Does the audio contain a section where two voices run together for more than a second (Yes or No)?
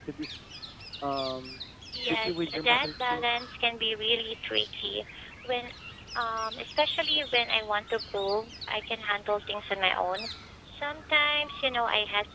Yes